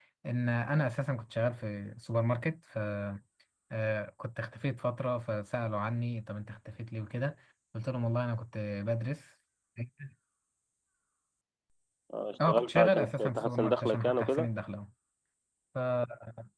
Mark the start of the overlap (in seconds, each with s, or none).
12.5 s